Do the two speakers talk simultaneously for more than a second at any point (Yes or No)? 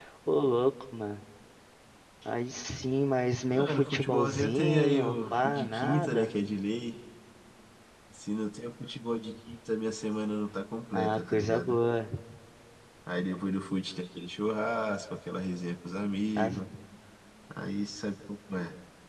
Yes